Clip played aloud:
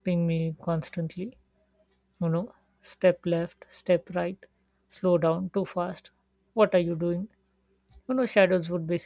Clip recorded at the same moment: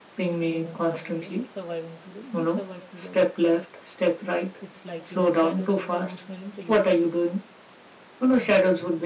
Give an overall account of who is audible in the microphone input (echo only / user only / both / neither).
both